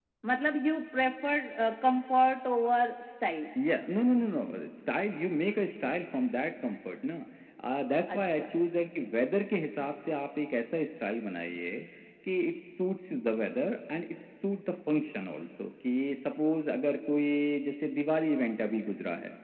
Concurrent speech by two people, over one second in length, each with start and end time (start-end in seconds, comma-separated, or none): none